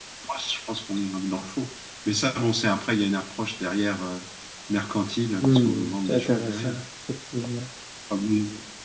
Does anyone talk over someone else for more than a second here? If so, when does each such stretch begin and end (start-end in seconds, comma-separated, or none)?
5.4-6.8